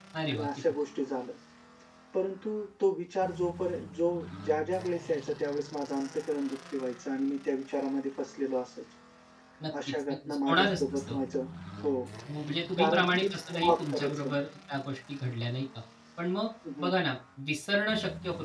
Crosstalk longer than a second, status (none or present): present